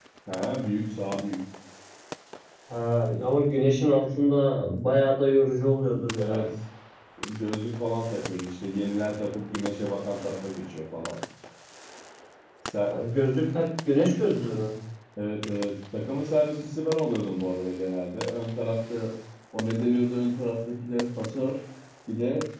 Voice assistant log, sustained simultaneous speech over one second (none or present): none